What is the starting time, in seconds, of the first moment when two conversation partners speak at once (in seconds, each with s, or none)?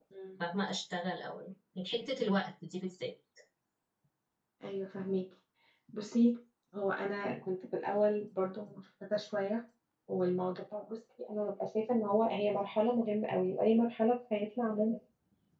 none